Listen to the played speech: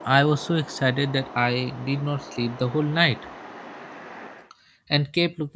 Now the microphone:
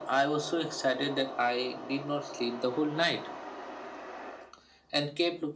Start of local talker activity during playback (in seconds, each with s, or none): none